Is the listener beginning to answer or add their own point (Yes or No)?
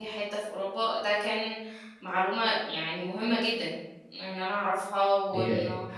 Yes